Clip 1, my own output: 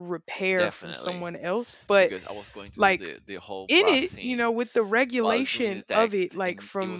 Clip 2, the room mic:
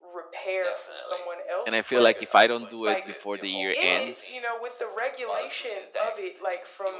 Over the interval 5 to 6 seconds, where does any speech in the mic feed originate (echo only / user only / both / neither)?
echo only